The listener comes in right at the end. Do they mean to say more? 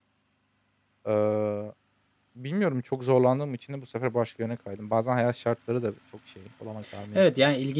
Yes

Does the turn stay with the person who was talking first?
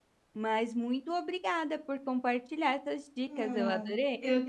No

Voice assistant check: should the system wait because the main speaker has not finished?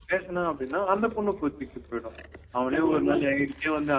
Yes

